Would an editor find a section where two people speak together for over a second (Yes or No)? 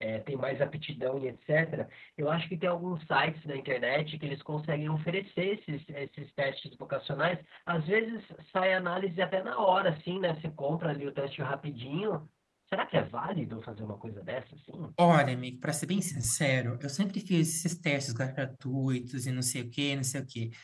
No